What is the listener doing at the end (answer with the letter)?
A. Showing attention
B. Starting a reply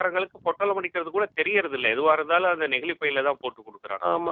B